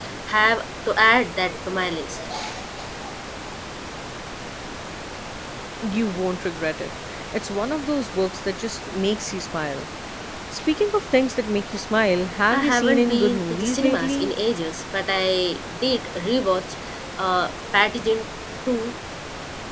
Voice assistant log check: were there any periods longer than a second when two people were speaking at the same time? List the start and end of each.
12.5-14.3

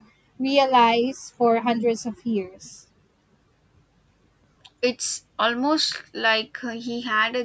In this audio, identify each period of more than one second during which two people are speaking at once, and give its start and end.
none

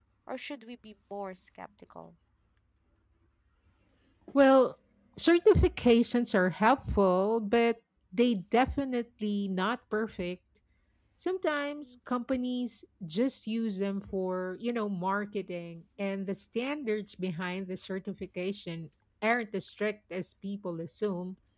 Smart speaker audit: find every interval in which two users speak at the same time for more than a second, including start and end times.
none

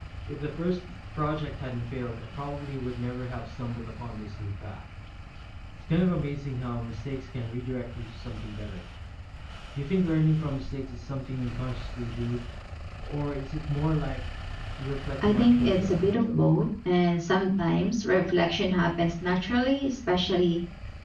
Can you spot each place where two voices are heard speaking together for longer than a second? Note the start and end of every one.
15.3-16.5

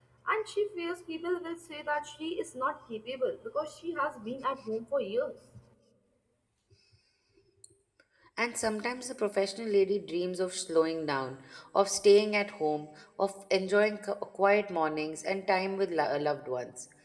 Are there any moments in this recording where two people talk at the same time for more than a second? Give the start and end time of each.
none

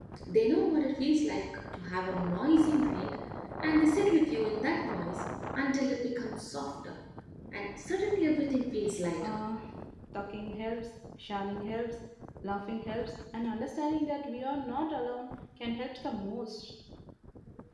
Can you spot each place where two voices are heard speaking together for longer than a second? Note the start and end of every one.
none

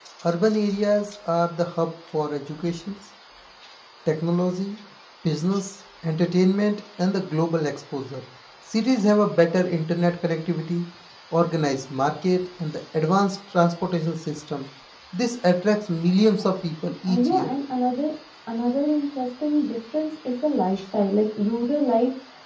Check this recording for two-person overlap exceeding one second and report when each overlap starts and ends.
none

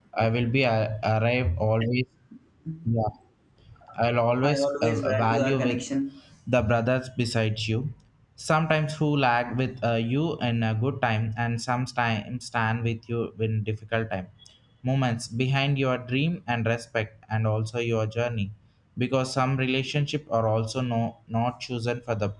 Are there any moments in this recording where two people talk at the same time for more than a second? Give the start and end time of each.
4.4-5.8

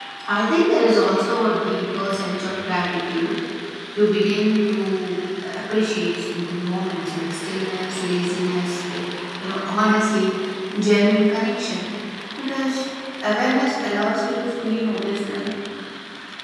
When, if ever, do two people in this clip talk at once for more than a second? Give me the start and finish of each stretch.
none

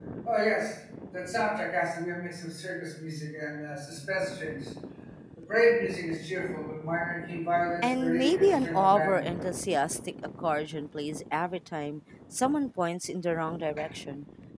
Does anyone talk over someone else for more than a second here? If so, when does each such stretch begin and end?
7.8-9.2

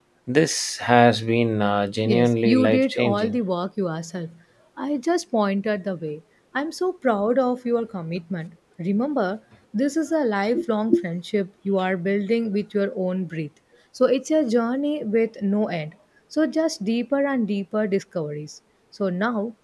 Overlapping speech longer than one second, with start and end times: 2.0-3.4

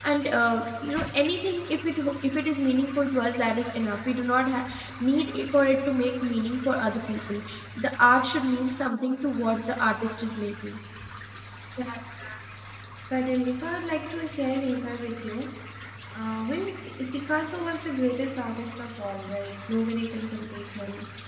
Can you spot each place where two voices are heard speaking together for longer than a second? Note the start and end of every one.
none

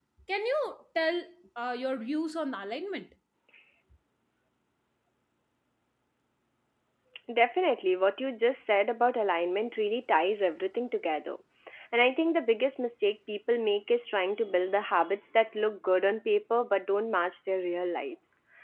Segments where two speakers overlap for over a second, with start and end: none

